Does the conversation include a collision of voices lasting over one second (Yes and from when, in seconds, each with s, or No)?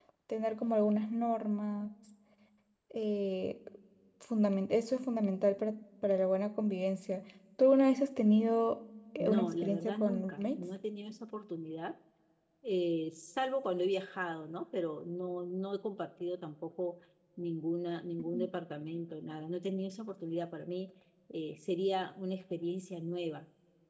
Yes, from 9.2 s